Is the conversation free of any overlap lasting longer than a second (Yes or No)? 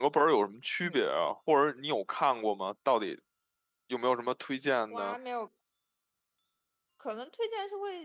Yes